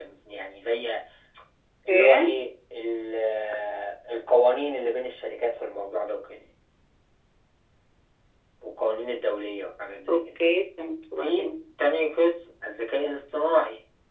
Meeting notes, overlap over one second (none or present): none